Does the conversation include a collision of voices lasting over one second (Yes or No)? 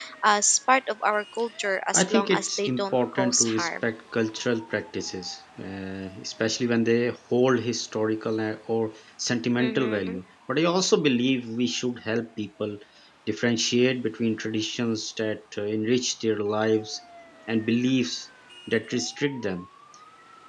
Yes